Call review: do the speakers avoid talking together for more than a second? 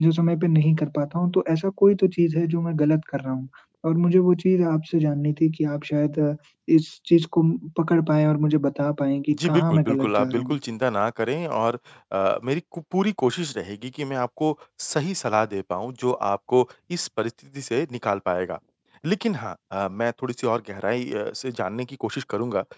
No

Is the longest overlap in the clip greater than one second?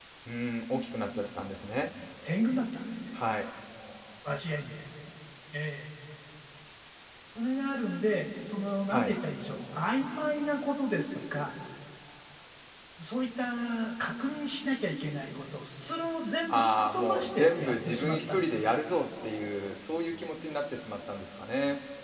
Yes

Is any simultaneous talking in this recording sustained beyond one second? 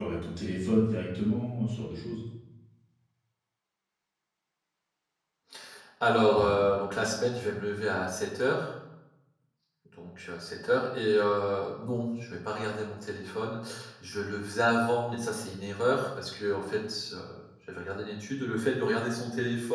No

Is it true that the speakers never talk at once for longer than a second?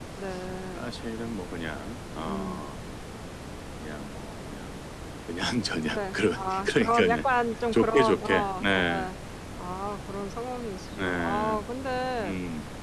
No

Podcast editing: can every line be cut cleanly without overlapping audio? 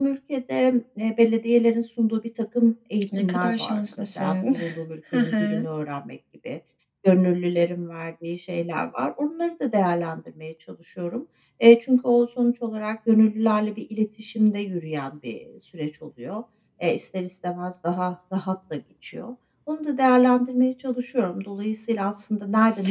No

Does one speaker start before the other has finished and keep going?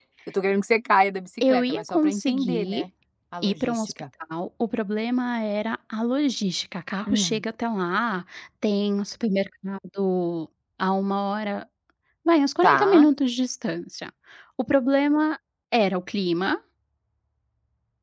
Yes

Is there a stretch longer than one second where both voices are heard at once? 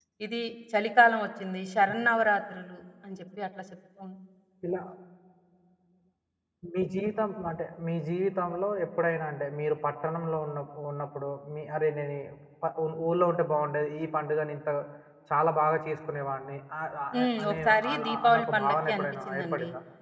Yes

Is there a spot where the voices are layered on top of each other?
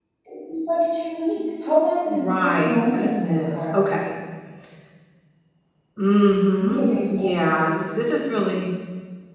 Yes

